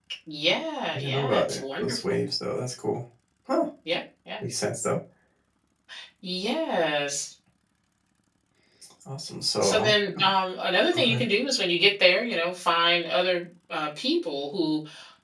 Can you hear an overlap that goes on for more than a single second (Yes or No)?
Yes